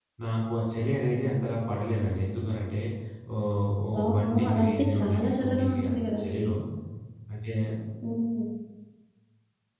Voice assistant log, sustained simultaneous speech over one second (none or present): present